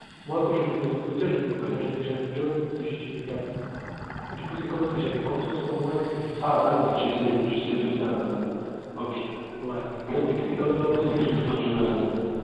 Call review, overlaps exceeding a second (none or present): present